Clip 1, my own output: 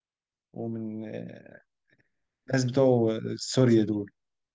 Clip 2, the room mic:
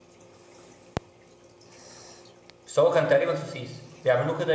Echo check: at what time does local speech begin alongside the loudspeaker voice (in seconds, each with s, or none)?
2.7 s